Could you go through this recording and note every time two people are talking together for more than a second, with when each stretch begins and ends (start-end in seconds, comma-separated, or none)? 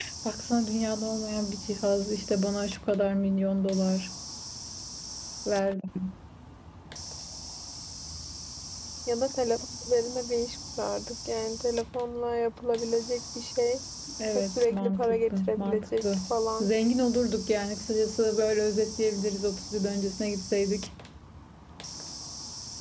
14.3-16.0